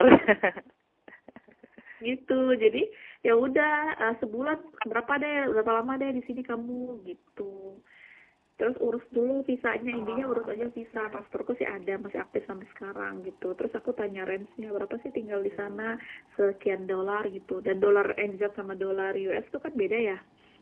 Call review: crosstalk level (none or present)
present